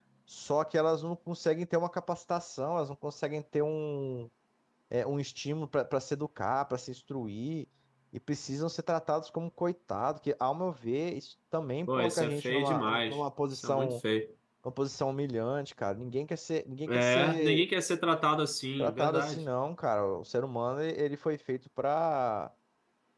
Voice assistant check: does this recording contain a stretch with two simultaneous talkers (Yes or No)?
Yes